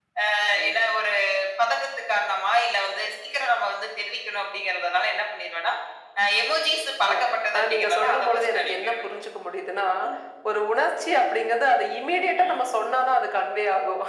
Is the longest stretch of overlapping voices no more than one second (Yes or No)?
No